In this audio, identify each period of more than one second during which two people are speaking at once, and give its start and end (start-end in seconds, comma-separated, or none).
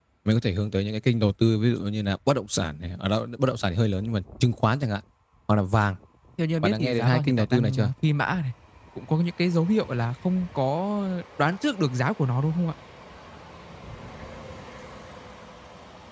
6.6-7.9